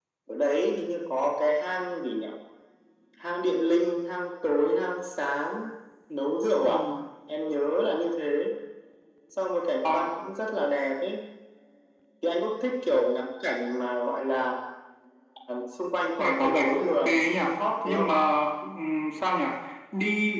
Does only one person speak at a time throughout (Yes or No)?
No